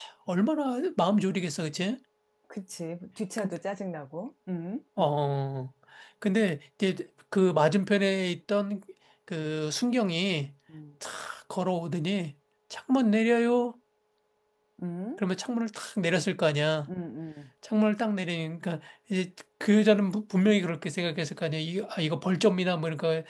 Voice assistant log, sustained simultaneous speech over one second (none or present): none